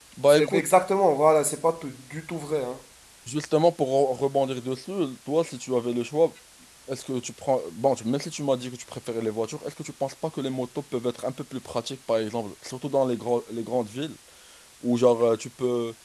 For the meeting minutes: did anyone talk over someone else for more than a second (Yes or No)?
No